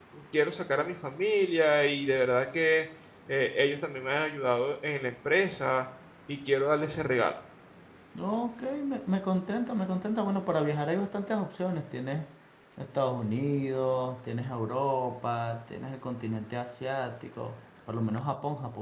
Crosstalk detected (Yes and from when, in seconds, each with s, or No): No